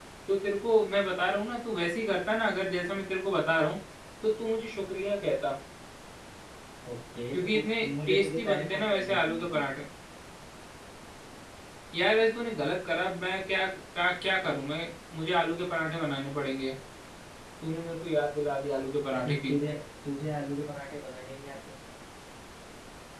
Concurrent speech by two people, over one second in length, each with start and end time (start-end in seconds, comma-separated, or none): 7.3-9.6